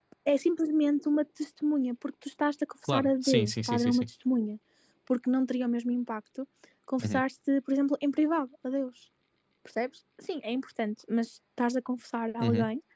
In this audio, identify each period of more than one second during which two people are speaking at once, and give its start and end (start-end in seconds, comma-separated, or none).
2.9-4.1